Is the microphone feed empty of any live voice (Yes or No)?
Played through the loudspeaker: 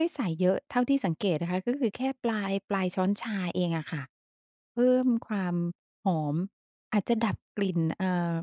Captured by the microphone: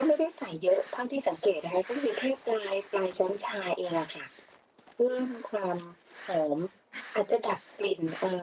Yes